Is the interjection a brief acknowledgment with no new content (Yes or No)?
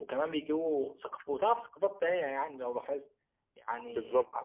Yes